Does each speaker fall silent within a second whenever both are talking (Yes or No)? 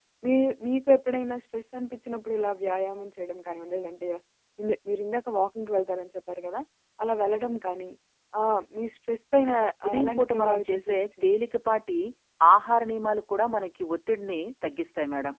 No